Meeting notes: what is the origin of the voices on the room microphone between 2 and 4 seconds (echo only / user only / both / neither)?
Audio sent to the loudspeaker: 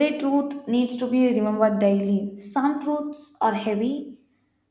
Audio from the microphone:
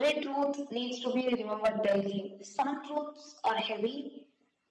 echo only